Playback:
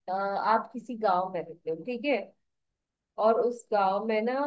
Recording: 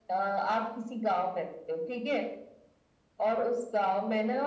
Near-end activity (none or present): none